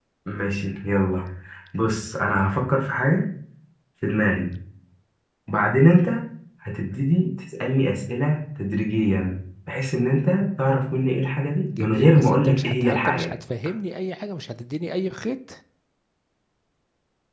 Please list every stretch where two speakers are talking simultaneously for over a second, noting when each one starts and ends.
11.8-13.3

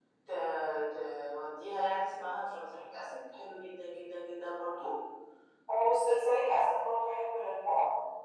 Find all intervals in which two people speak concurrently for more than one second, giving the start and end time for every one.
none

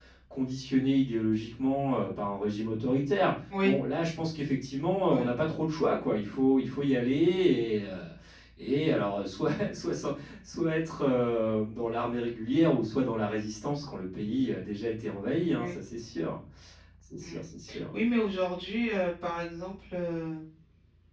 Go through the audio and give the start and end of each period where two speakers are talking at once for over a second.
none

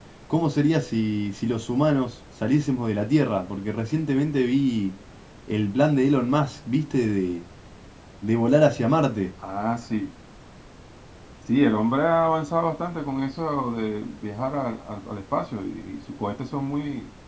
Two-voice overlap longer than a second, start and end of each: none

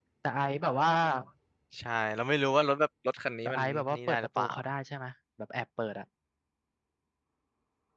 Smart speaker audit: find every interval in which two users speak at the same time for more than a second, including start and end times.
3.4-4.7

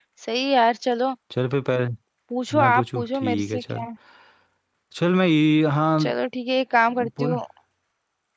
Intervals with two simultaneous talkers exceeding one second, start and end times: 2.6-3.9

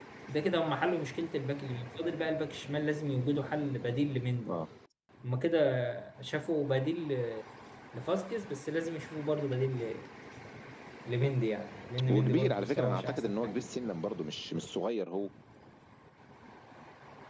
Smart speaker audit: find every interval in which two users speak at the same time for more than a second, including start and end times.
12.1-13.7

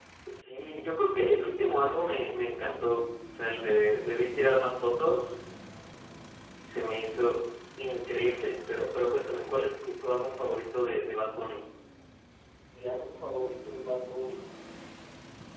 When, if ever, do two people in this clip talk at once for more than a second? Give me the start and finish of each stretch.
none

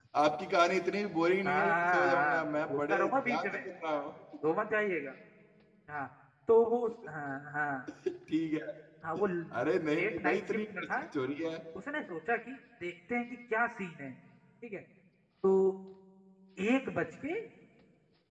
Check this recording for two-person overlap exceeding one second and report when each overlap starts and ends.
1.4-3.4, 9.6-10.8

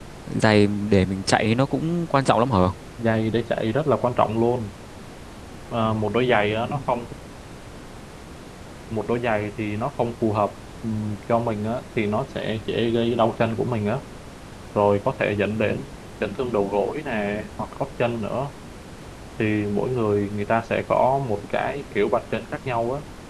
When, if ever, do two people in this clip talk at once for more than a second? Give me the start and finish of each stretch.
none

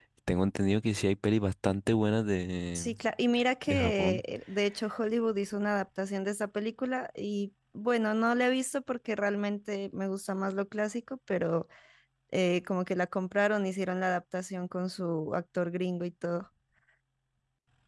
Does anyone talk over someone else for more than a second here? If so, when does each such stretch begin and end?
none

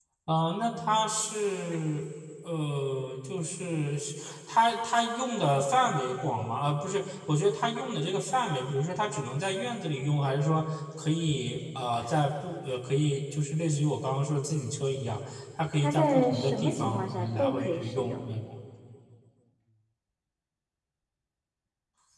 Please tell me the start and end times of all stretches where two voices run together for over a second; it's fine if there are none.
15.8-18.2

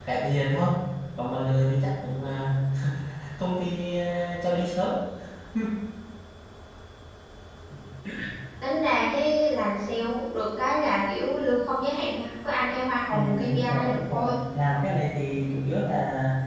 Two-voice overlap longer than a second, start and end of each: 13.1-14.3

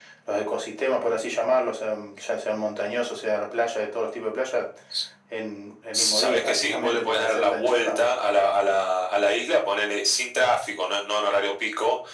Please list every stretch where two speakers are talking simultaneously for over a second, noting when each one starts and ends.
5.9-8.0

